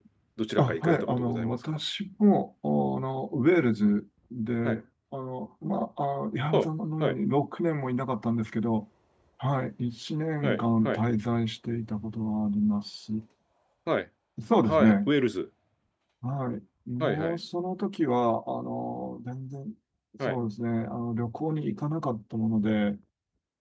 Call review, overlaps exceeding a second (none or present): present